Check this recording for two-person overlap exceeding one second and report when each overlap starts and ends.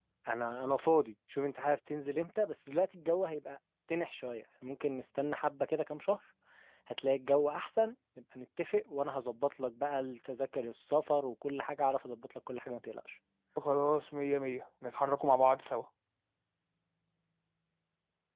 none

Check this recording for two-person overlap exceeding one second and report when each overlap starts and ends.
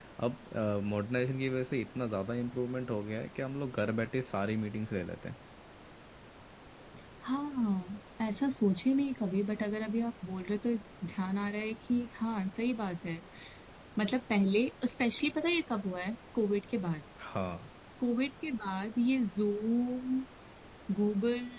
none

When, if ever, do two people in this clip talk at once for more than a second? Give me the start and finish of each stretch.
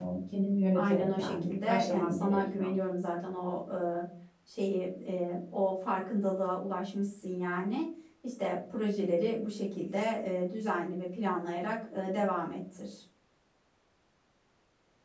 0.7-2.7

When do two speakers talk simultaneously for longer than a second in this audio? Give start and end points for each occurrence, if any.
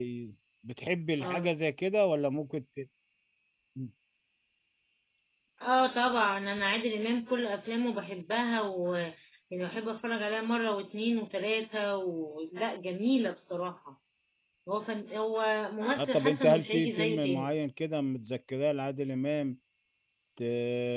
15.9-17.5

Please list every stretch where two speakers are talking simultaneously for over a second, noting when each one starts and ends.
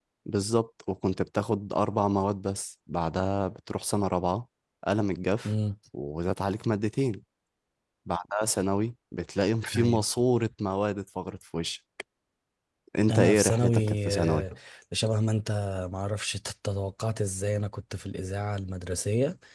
13.1-14.4

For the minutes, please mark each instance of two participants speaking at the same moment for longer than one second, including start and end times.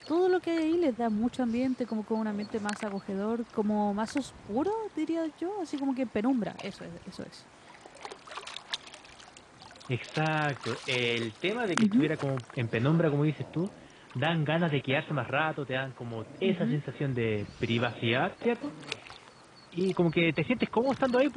none

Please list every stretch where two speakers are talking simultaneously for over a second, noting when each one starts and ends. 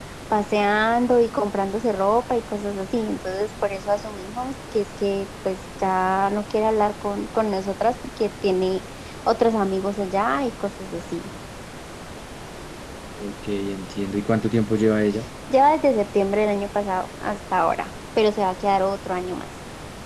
none

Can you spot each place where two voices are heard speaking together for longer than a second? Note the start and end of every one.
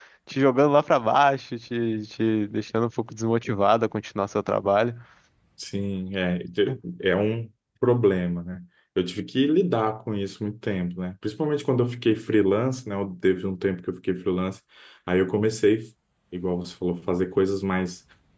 none

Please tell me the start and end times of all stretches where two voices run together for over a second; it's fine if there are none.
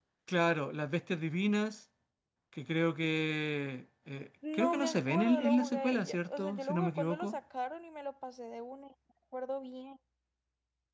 4.5-7.4

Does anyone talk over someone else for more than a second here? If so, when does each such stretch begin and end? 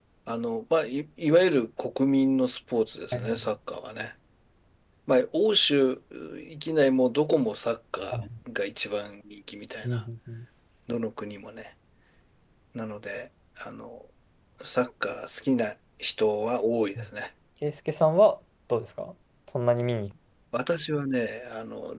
none

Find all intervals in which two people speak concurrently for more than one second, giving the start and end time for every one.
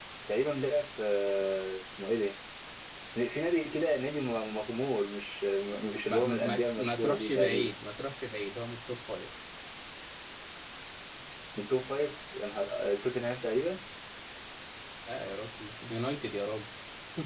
6.1-7.7

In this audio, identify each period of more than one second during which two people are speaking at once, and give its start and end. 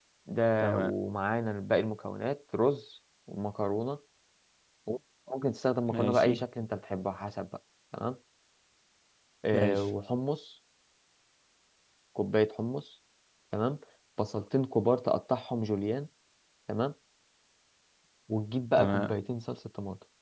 none

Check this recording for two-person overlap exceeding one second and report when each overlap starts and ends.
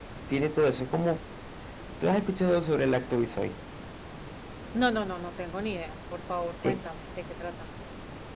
none

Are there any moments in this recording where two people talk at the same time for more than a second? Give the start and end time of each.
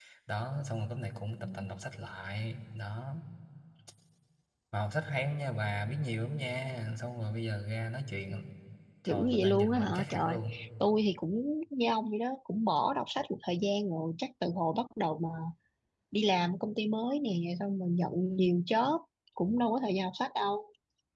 9.1-10.4

